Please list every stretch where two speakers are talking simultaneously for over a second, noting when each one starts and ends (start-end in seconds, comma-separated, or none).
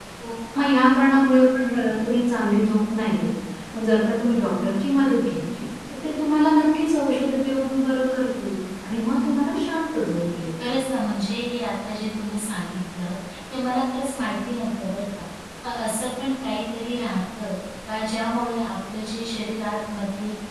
none